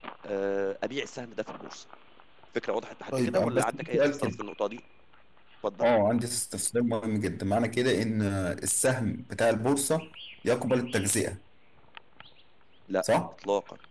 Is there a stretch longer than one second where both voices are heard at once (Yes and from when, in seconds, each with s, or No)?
Yes, from 3.1 s